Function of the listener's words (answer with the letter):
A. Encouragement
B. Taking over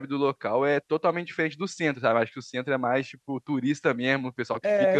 B